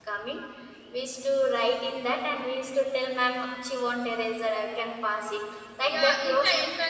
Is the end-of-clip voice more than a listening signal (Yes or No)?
Yes